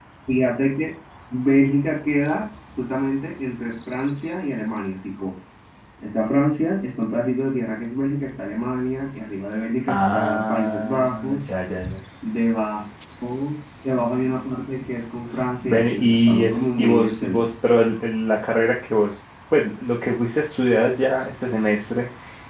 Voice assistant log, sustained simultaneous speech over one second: present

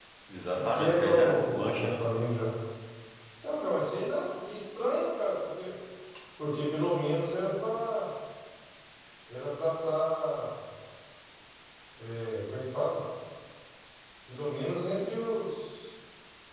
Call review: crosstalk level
present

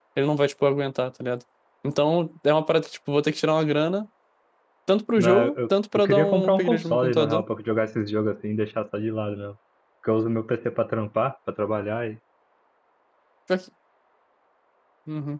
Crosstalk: present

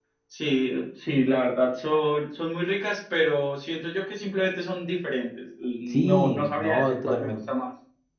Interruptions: present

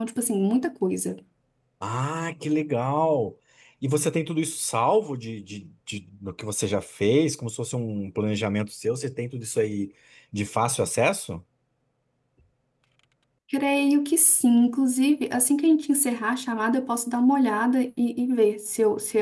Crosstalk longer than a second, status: none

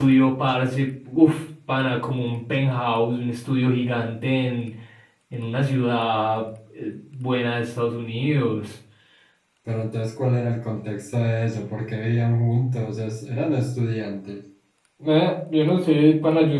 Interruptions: none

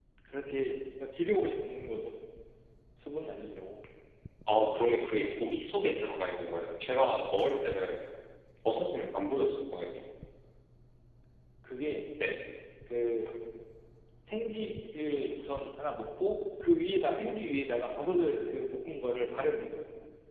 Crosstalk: none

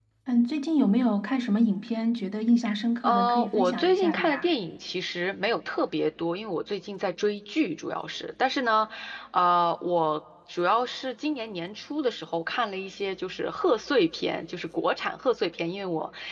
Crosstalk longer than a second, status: present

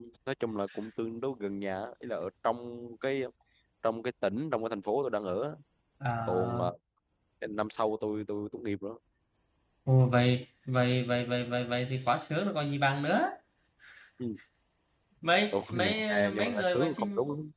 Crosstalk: present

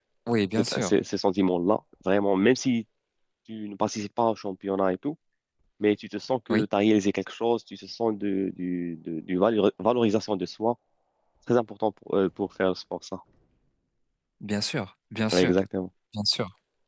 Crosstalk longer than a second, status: none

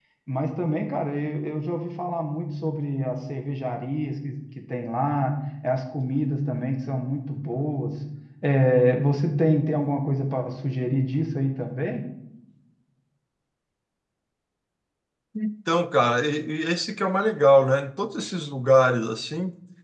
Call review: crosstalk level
none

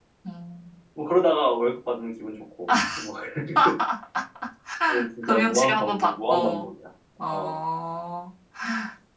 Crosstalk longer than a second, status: present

